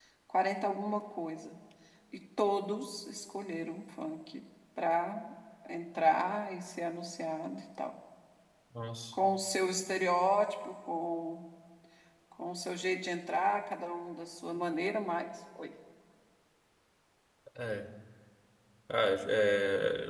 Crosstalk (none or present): none